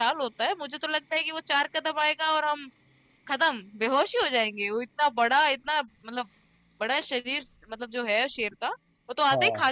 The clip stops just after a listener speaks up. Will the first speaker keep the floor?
Yes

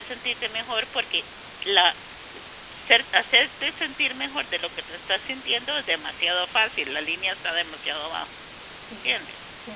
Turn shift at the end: Yes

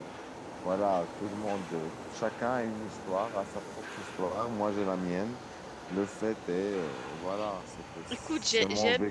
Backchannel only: No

